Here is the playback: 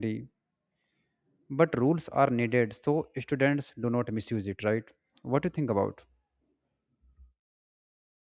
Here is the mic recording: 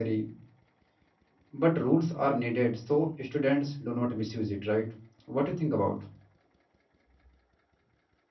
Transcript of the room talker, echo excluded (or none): none